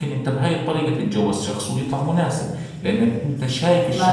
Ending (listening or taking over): taking over